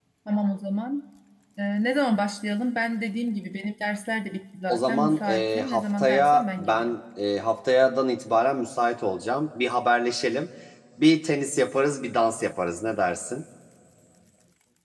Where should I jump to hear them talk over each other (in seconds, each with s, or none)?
4.7 s